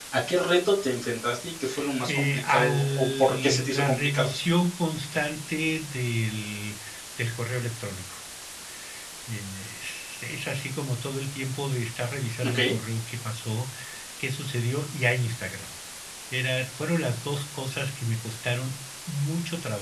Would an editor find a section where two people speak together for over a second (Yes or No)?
Yes